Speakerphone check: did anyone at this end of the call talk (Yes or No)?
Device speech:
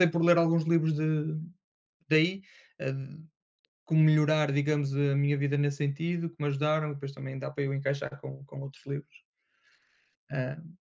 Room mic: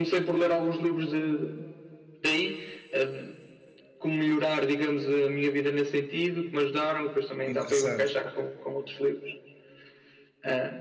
Yes